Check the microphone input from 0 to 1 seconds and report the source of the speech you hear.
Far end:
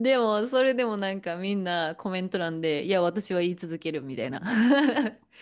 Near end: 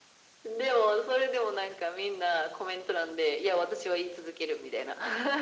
echo only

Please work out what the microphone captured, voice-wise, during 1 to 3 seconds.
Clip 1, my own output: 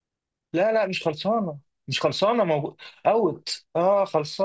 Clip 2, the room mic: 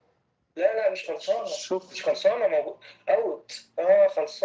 both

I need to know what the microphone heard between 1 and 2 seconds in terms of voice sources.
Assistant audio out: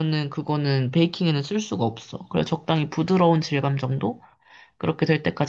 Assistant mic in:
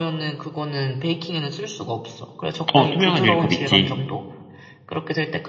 echo only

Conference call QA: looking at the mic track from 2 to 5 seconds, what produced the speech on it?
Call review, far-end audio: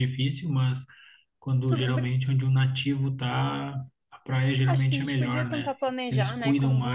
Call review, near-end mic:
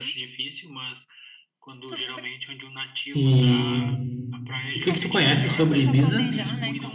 both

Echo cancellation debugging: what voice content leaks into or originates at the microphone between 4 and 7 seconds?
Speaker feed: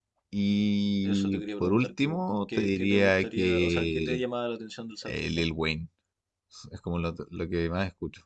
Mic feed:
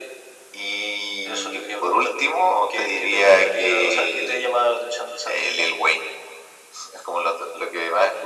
echo only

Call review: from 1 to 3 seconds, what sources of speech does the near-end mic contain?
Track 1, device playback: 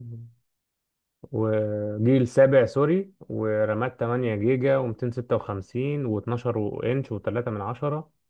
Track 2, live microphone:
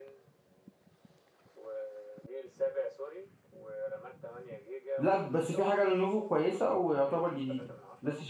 echo only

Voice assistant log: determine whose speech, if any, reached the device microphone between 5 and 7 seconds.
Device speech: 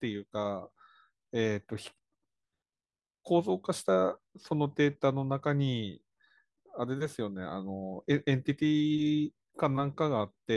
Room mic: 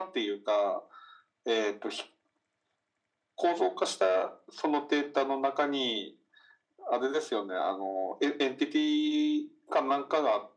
echo only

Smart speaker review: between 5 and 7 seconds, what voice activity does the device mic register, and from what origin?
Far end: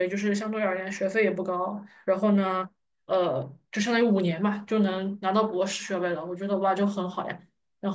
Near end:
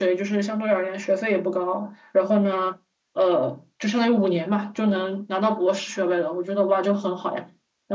echo only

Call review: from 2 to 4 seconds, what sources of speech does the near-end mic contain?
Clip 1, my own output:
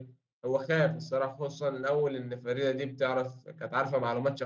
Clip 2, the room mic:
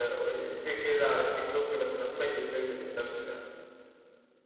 user only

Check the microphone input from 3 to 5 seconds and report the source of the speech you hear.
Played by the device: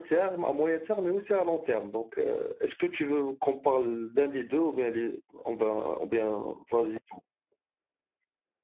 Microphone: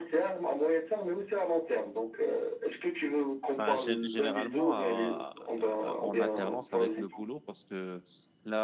both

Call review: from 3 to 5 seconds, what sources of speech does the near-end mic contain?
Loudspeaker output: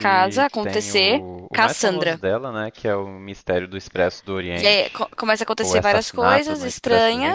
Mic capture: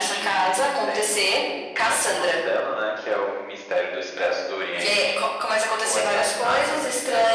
echo only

